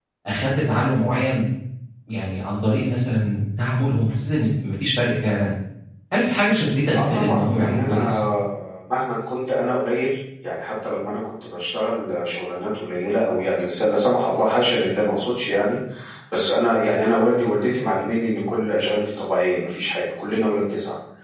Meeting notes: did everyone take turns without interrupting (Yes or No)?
No